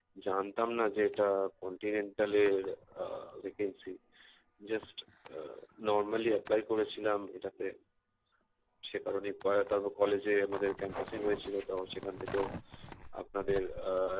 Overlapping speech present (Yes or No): No